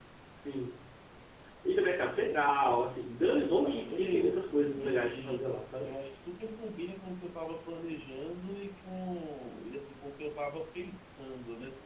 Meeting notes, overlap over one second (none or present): present